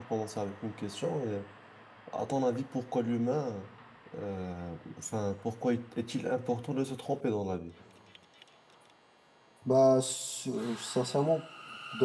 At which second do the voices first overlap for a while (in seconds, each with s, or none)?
none